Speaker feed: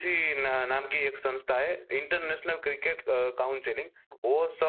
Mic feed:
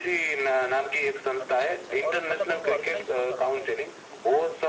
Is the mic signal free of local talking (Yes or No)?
No